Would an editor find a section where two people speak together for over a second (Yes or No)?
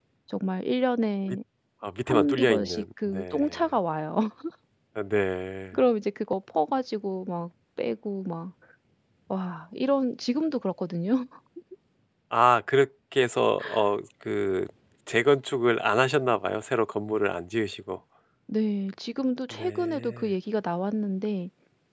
Yes